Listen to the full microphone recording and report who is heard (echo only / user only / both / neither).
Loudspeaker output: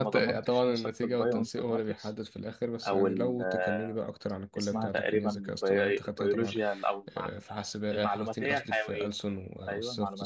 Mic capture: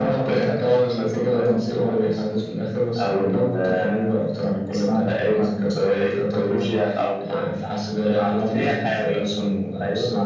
echo only